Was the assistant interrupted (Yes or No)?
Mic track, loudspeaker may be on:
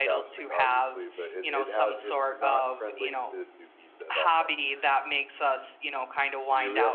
Yes